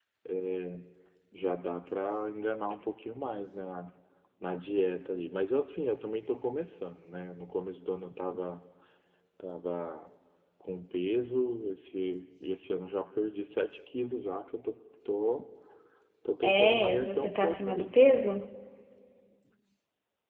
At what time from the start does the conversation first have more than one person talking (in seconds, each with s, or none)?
16.4 s